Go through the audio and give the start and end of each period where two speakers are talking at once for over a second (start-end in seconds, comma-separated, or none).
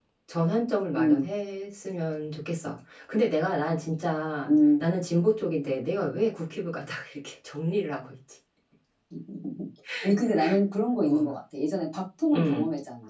none